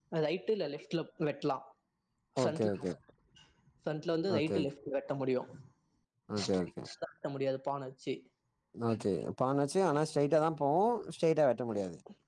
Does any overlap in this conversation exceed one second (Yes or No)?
No